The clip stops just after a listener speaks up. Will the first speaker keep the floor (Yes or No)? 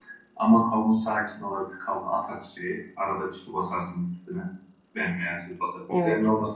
Yes